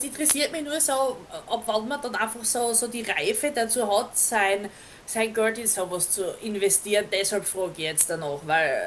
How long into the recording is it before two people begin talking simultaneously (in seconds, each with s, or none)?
none